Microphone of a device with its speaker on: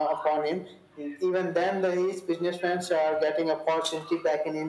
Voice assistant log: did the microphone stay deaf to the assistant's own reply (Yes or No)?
No